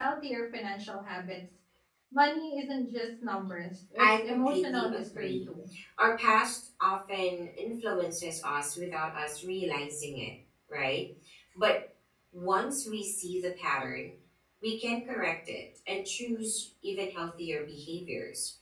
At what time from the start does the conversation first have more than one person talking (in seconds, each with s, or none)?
4.0 s